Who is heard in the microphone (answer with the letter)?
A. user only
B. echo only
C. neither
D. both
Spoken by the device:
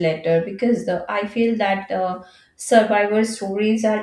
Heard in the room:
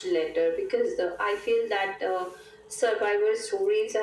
B